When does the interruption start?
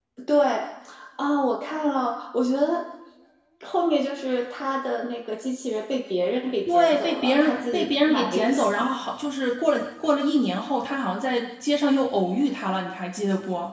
6.7 s

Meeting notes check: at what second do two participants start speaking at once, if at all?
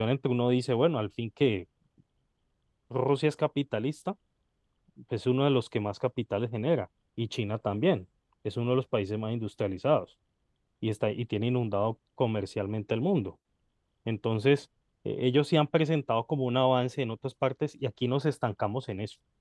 none

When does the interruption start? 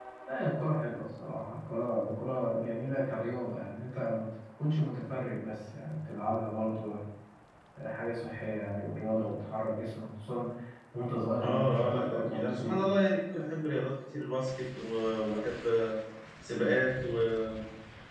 11.4 s

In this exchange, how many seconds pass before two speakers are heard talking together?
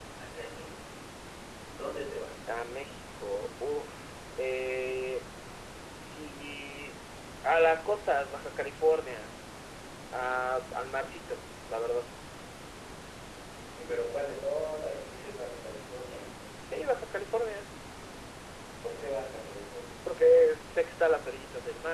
none

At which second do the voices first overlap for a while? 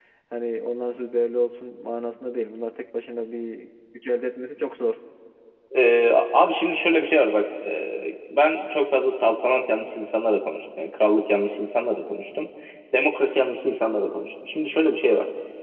none

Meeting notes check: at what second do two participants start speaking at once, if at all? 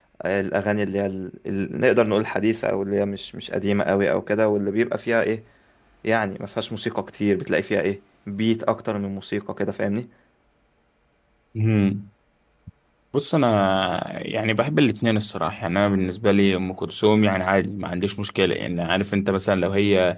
none

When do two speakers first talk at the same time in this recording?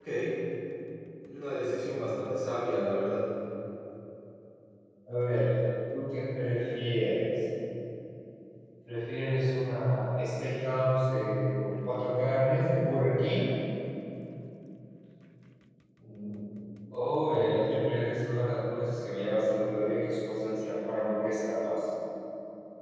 none

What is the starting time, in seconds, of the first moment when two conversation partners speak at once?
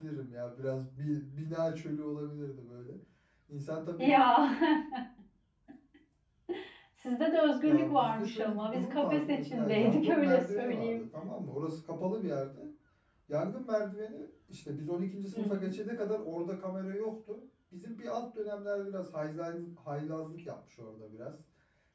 7.6 s

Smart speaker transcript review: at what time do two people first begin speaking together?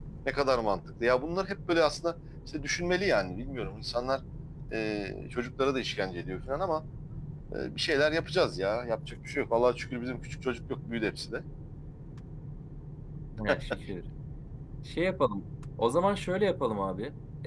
none

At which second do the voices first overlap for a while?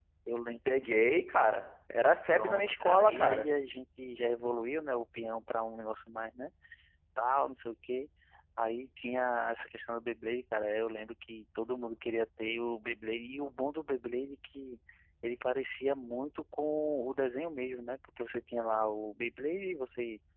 2.2 s

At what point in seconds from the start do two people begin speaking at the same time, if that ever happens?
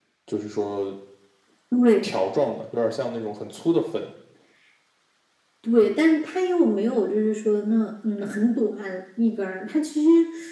none

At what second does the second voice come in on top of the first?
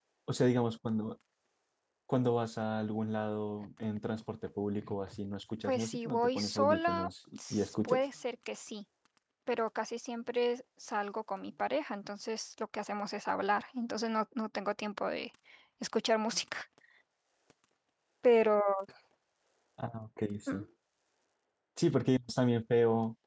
5.7 s

